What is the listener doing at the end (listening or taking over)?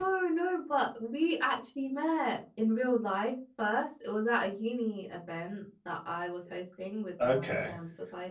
listening